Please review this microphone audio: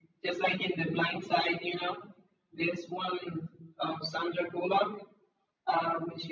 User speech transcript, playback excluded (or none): none